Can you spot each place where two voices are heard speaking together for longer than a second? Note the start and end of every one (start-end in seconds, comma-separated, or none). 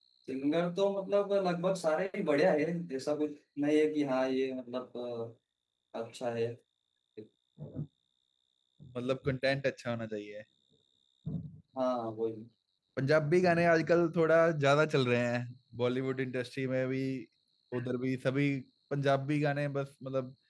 none